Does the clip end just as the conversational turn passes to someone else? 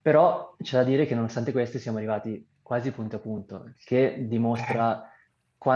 No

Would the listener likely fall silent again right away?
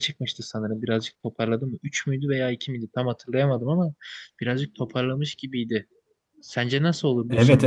No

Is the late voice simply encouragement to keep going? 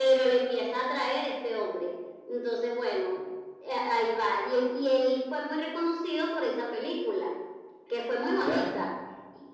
Yes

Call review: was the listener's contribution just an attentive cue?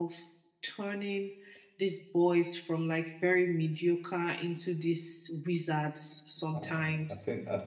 No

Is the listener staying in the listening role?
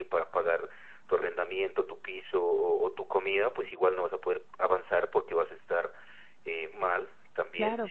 No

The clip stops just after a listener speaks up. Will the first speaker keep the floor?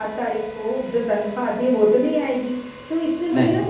Yes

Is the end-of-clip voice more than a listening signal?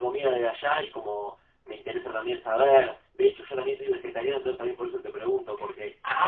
No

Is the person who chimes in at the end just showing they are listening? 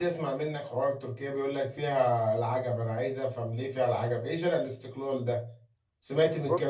Yes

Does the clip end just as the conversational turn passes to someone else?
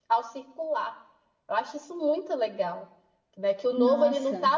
No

